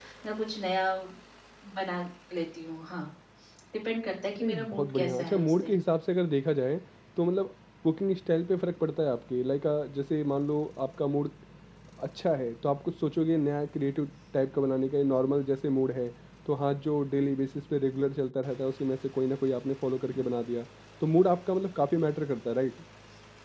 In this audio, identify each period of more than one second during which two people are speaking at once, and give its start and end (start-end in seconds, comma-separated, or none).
4.4-5.8